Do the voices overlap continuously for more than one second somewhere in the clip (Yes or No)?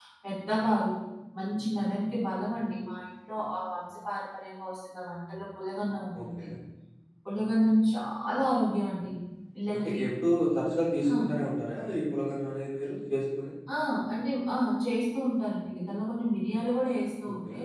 No